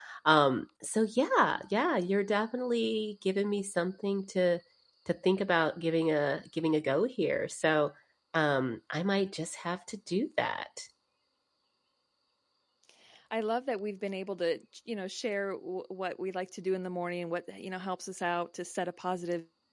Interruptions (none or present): none